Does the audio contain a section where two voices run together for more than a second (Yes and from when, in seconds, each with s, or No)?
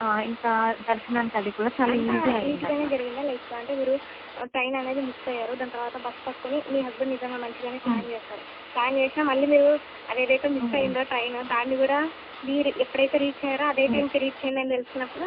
Yes, from 1.7 s